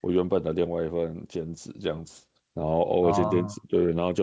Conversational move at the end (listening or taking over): listening